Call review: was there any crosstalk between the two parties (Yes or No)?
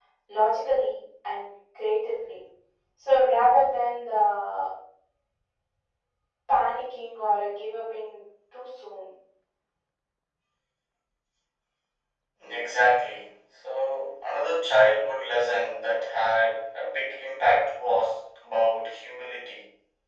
No